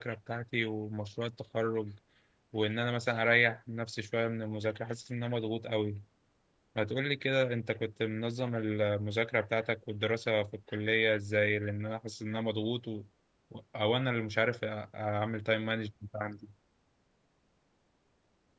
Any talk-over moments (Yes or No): No